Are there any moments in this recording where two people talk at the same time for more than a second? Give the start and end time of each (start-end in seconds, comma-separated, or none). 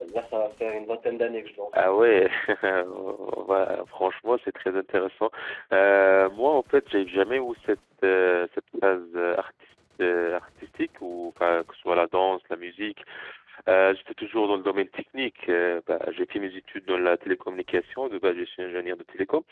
none